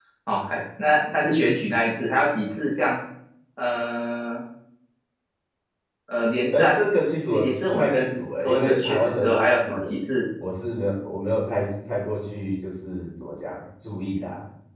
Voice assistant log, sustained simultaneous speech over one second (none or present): present